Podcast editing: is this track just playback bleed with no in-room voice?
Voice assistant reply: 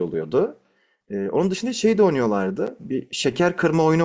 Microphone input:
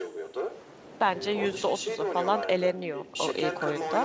No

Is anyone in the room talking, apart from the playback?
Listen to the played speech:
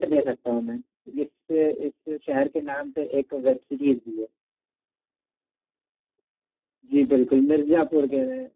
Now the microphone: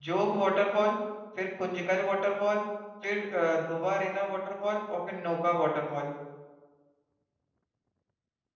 Yes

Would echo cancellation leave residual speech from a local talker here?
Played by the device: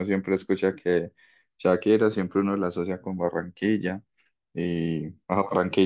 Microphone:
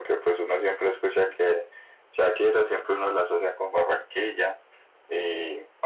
No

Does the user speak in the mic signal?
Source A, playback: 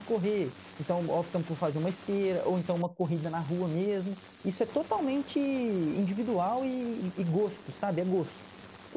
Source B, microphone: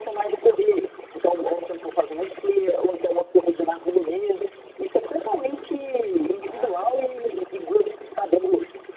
Yes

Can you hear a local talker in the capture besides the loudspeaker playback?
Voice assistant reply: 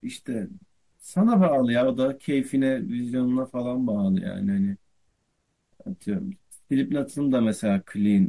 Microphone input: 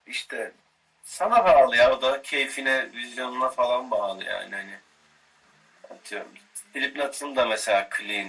No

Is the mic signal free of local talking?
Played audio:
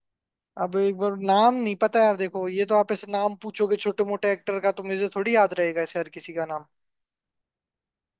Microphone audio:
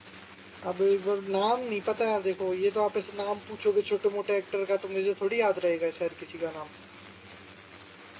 Yes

